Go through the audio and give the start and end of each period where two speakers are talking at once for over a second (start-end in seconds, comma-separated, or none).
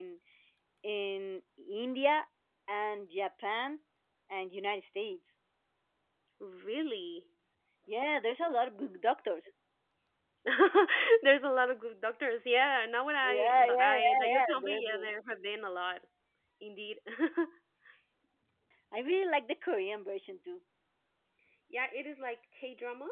13.2-14.9